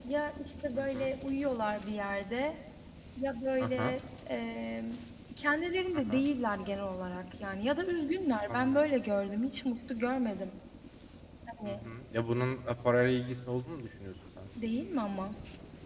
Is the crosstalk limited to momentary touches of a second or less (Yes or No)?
Yes